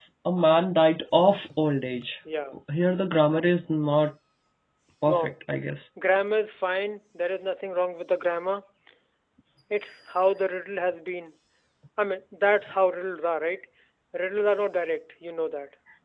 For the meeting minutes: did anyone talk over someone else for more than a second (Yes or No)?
No